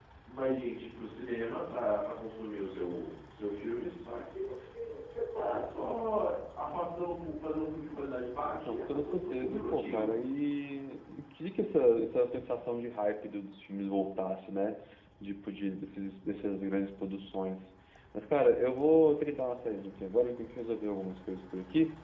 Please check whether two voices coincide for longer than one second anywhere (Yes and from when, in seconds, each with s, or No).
Yes, from 8.6 s